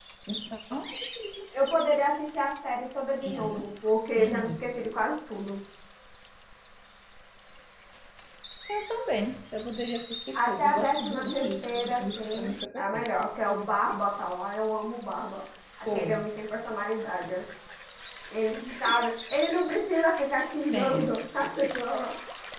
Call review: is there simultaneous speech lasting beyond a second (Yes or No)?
Yes